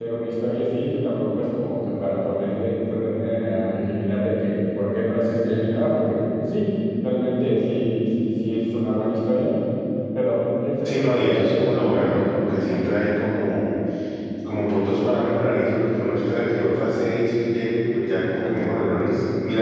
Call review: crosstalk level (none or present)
present